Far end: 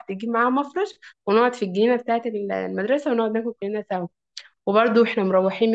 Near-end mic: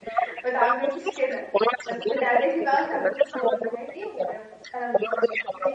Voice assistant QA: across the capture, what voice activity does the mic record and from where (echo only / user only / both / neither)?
both